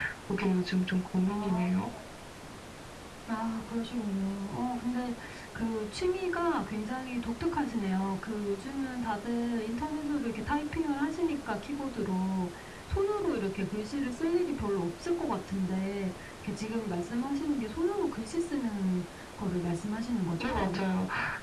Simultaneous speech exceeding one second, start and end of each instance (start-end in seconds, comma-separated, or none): none